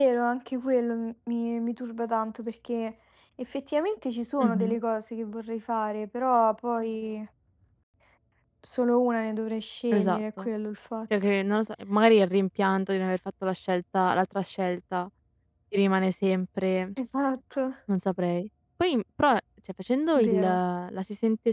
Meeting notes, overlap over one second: none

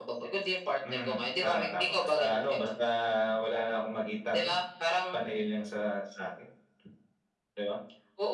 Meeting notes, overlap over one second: present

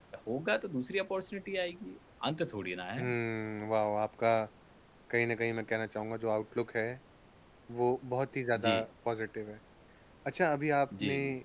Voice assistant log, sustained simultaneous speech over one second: none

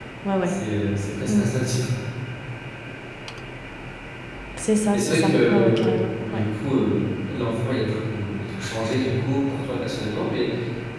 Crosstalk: present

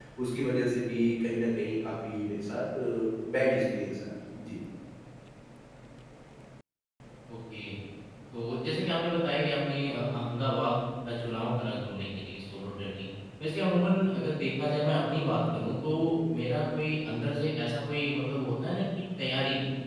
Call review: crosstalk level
none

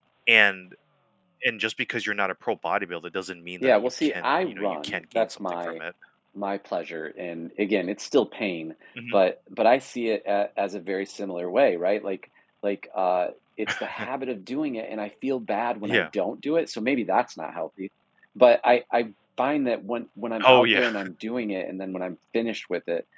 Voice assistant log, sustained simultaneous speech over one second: present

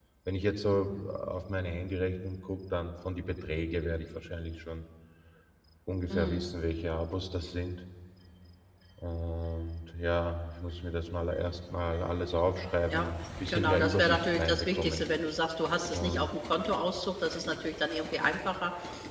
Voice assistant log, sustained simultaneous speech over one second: present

